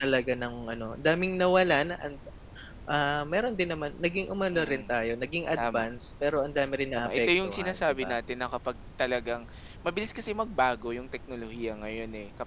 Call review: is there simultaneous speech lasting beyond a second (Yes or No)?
Yes